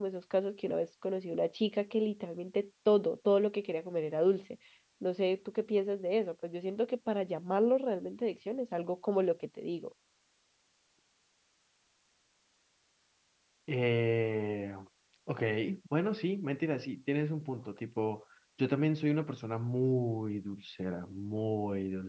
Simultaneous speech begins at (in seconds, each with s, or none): none